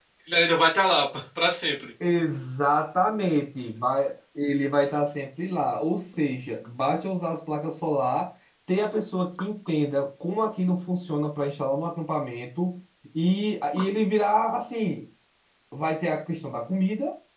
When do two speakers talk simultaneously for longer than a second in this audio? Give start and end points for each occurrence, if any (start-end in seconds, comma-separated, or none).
none